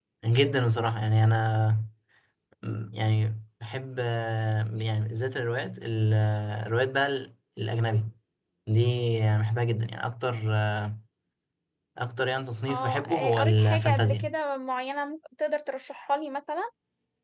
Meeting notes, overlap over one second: present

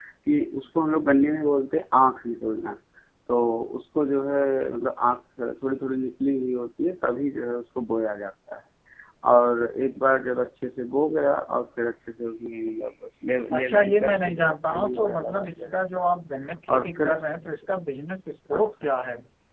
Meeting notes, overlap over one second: present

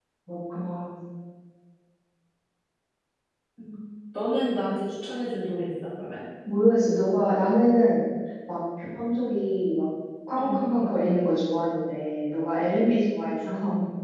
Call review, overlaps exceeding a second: none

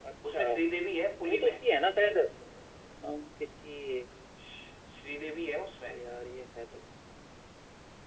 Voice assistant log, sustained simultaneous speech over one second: none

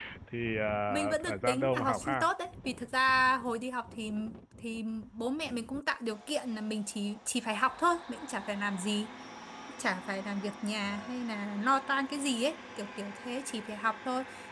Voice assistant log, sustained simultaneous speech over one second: present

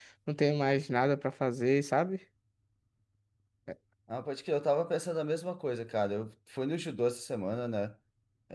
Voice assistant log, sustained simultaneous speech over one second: none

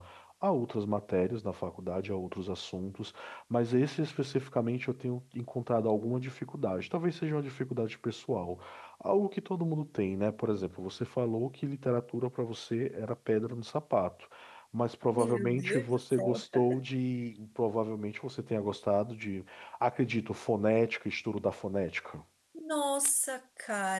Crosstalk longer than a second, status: present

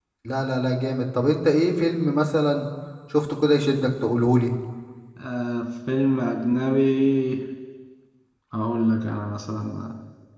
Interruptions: none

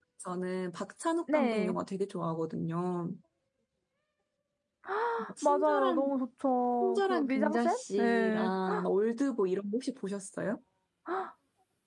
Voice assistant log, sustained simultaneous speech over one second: present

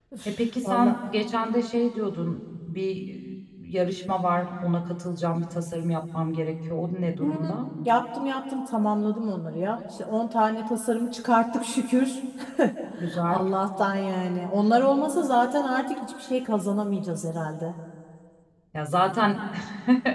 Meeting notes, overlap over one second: none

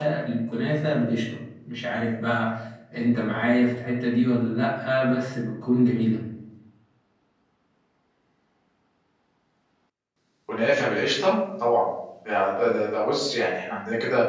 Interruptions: none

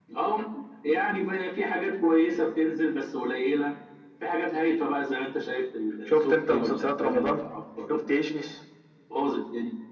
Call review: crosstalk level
present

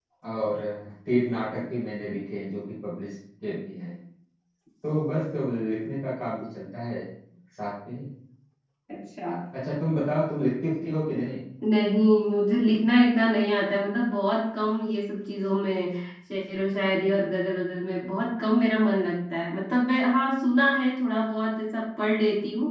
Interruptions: none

